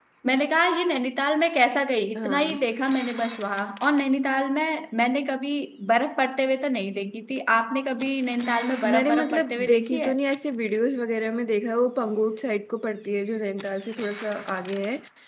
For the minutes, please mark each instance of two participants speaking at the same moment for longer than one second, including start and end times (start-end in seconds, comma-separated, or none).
8.8-10.1